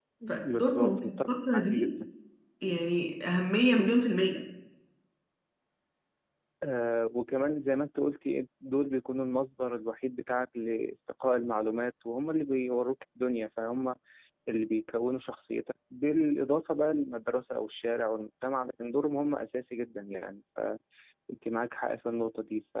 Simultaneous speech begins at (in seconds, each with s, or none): 0.5 s